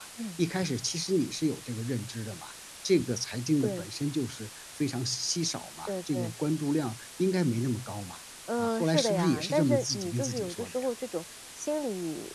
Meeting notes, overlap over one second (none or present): present